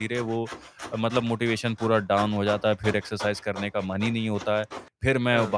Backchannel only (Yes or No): Yes